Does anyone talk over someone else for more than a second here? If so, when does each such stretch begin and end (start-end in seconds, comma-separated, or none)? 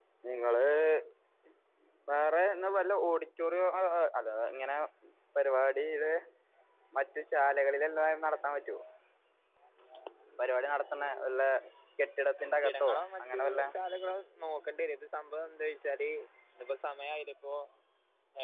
12.4-13.6